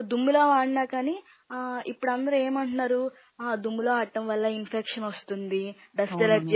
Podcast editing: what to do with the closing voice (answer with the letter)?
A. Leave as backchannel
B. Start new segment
A